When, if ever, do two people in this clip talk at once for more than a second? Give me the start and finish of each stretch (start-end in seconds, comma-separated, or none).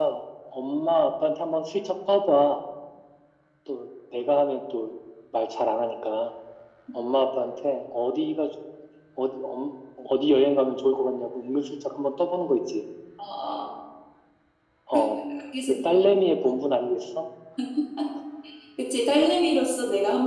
none